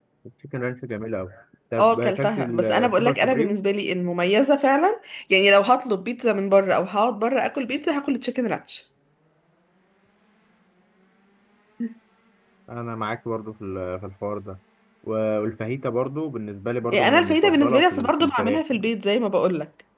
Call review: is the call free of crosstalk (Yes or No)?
No